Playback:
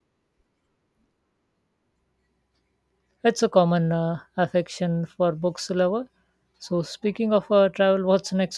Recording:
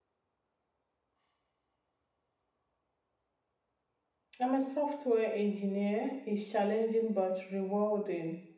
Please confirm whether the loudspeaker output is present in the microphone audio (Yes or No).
No